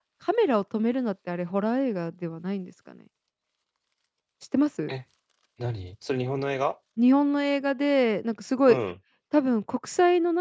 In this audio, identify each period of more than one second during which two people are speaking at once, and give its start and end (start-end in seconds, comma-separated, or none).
none